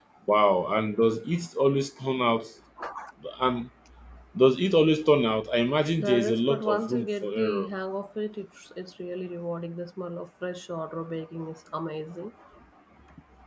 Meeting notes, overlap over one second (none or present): present